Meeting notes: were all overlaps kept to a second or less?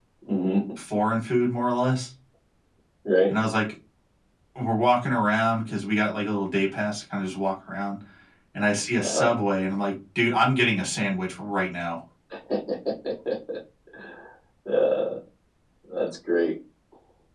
Yes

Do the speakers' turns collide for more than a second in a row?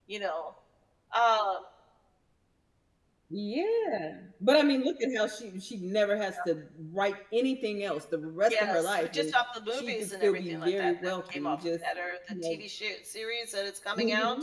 Yes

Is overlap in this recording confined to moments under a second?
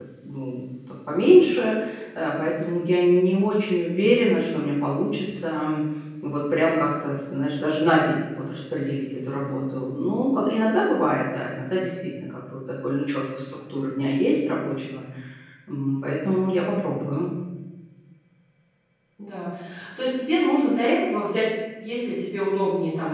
Yes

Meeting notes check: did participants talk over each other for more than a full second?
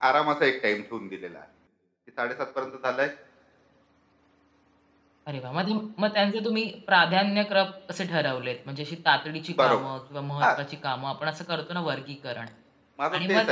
No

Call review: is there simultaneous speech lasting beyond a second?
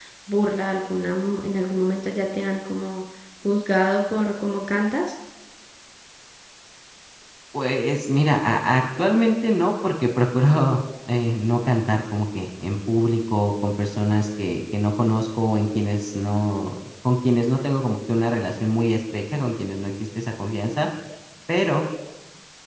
No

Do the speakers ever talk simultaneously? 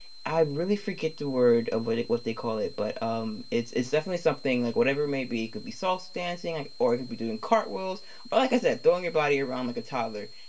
No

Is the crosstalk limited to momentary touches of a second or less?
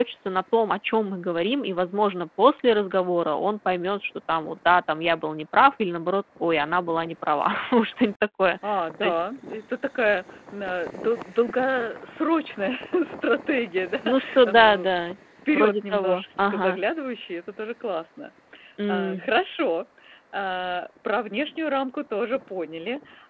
No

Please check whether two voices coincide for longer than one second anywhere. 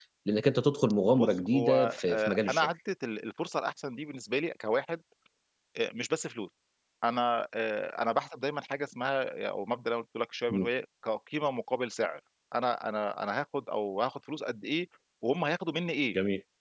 Yes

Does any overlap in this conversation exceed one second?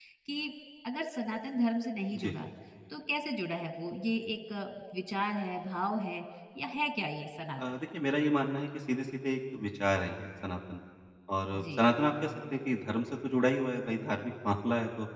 No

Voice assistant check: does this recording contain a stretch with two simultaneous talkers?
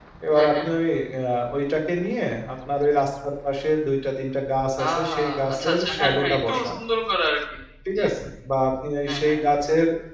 Yes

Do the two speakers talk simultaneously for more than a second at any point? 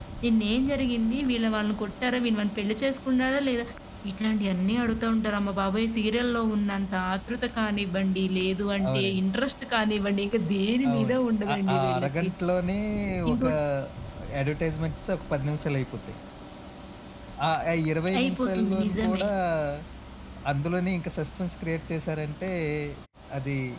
Yes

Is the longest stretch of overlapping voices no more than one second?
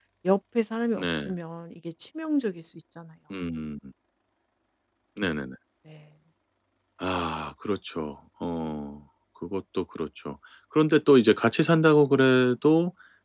Yes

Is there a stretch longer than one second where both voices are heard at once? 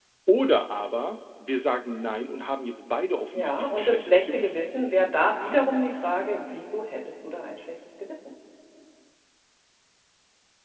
Yes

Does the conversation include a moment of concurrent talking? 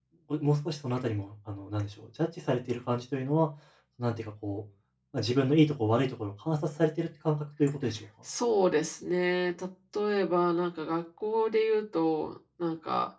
No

